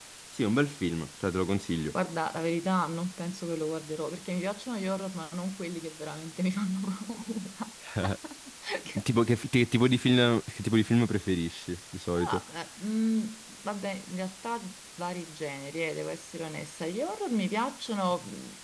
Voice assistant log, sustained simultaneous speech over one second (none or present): none